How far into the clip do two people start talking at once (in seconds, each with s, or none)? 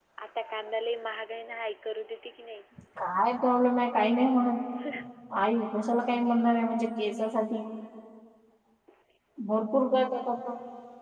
none